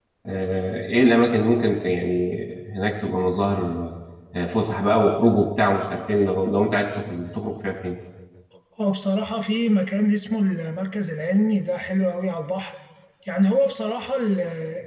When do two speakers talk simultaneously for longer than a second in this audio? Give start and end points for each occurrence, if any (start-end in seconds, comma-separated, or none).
none